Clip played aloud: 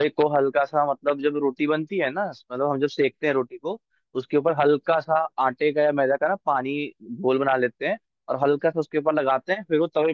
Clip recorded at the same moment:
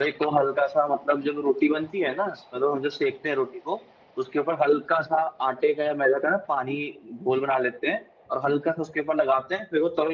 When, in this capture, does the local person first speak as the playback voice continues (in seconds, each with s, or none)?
none